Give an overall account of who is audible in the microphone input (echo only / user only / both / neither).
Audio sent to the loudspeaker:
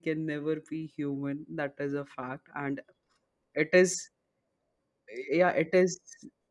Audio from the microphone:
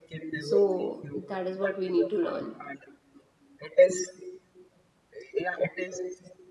both